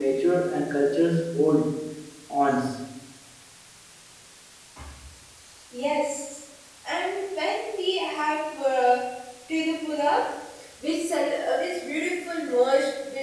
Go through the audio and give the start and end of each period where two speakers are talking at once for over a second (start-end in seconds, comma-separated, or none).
none